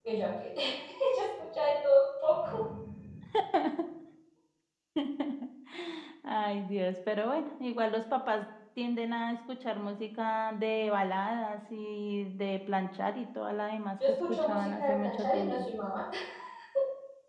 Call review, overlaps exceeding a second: present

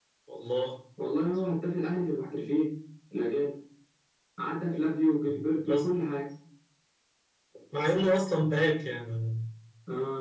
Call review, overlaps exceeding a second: none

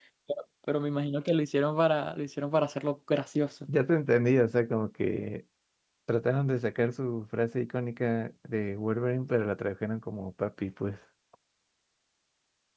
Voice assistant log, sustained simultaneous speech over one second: none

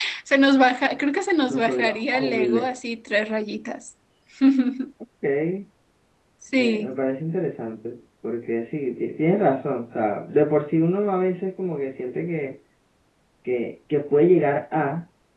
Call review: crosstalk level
present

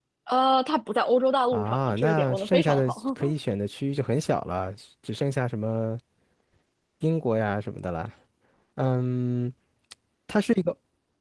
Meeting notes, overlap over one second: present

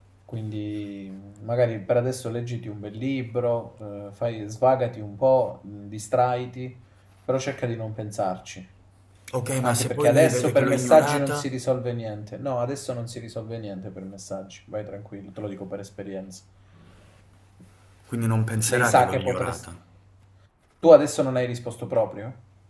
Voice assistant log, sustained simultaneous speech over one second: present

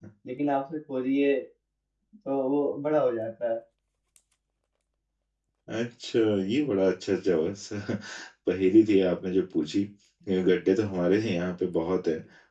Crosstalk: none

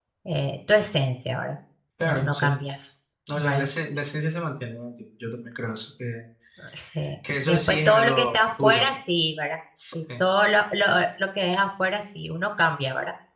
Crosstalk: present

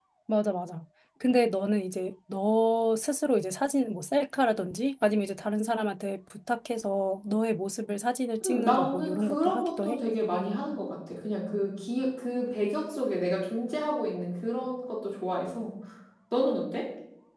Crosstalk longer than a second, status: present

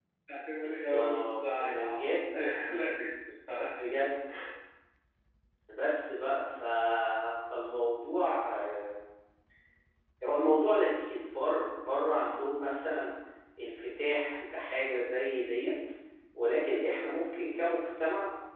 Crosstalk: present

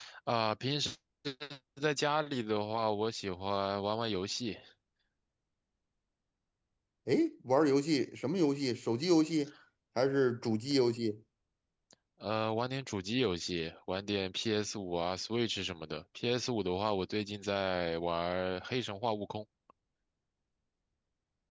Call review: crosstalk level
none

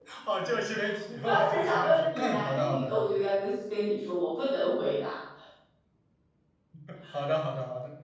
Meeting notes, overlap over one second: present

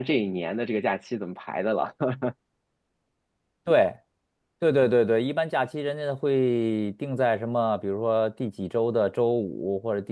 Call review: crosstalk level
none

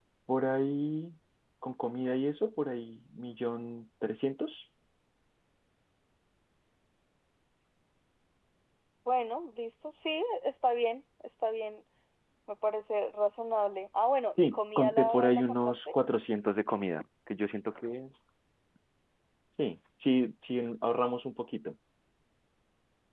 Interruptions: present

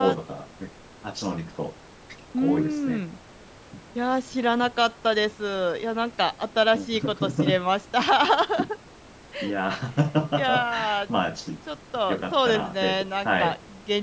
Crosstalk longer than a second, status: present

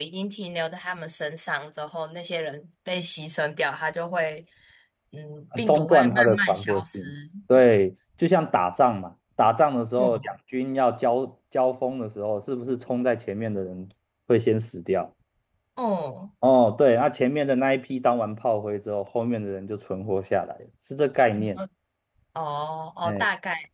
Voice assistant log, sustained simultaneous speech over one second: present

